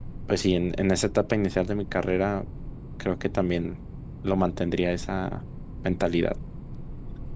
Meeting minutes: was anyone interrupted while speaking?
No

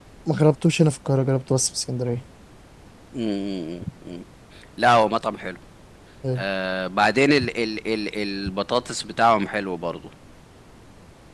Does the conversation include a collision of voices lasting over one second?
No

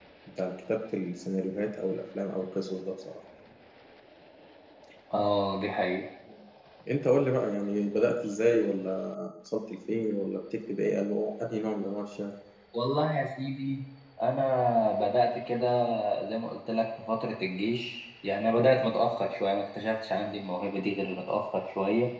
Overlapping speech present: No

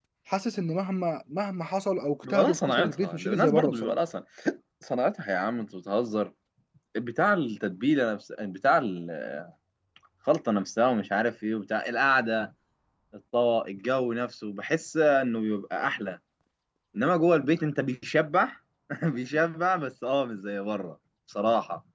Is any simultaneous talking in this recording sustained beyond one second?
Yes, from 2.2 s

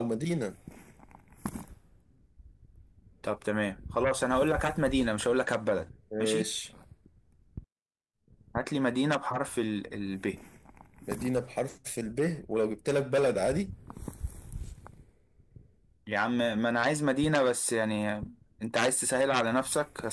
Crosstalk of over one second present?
No

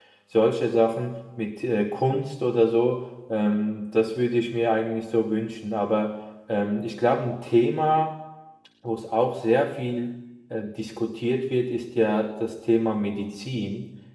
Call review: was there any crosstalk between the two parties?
No

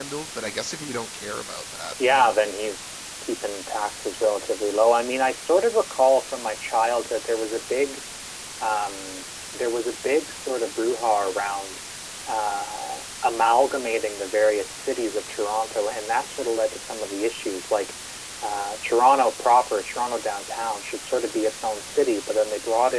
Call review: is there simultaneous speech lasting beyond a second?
No

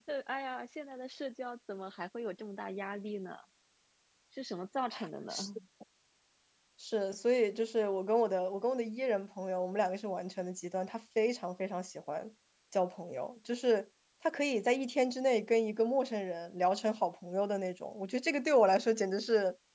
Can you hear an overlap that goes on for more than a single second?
No

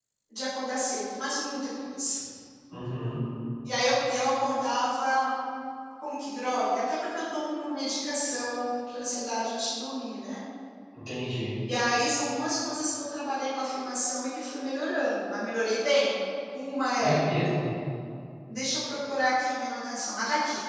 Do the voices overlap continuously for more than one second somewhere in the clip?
No

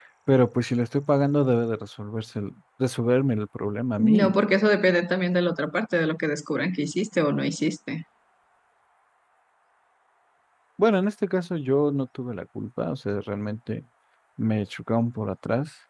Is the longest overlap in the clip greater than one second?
No

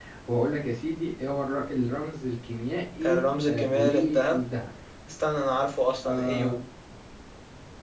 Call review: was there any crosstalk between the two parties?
Yes, from 3.0 s

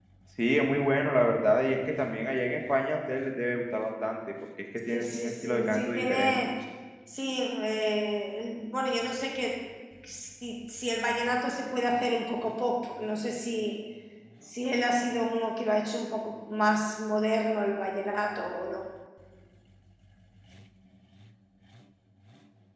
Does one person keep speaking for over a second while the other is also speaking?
Yes, from 4.9 s

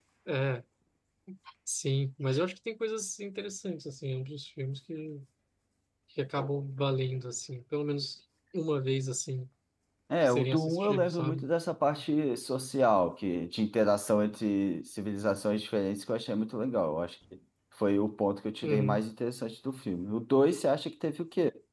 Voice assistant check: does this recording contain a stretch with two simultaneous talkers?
Yes, from 10.2 s

